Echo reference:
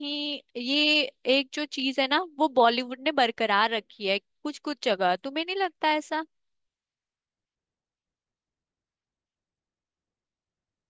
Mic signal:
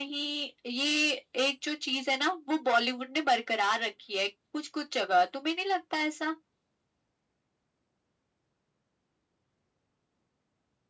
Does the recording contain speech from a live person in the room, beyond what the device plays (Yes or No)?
No